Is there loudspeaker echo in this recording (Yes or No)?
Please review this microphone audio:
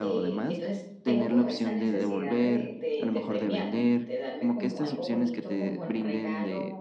Yes